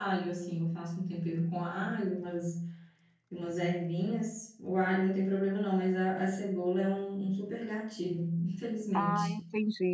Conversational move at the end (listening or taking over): taking over